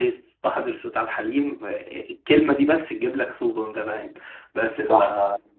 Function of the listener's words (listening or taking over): listening